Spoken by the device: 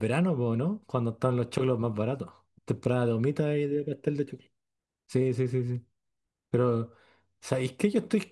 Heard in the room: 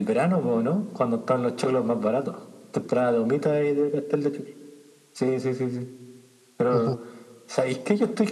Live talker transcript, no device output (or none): Ajá.